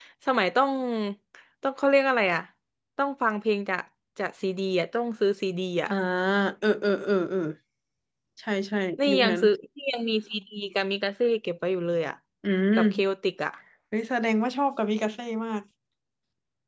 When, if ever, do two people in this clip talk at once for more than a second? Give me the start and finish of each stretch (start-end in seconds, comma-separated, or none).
none